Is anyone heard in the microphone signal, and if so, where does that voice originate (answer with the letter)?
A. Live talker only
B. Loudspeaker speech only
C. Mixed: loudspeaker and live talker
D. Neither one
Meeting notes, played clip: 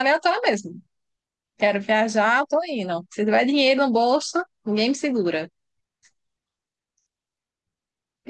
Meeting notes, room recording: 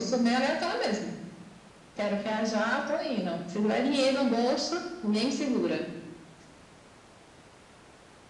B